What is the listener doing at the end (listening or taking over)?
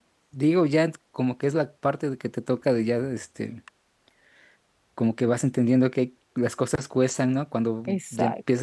listening